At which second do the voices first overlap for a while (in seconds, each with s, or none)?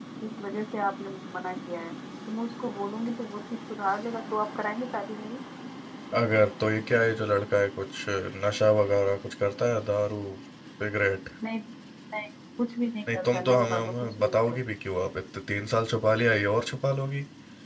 13.1 s